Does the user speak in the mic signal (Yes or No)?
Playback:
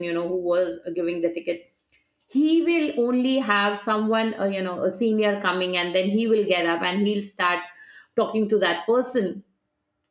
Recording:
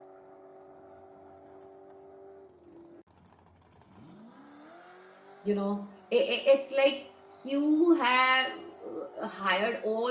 Yes